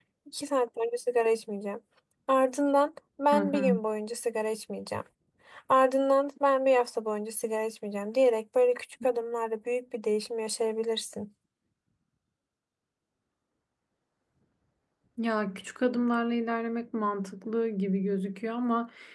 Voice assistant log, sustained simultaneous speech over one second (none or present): none